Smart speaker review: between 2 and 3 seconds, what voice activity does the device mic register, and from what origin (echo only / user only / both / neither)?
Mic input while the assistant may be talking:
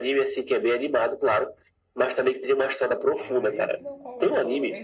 echo only